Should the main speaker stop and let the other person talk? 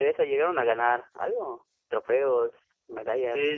Yes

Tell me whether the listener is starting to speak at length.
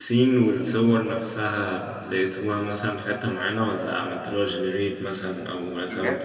Yes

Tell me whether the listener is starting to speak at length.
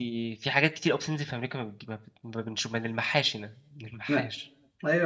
Yes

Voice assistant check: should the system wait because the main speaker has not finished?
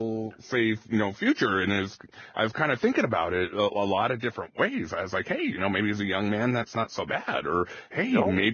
Yes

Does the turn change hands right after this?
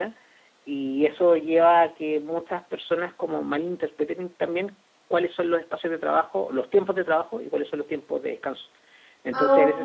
No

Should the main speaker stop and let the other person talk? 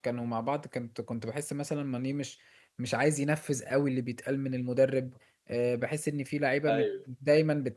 No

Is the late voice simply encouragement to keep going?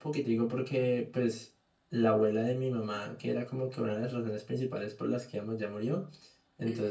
Yes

